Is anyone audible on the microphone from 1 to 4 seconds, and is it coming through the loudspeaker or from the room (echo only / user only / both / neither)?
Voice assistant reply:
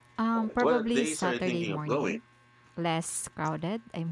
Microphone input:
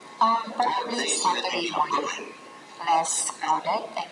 echo only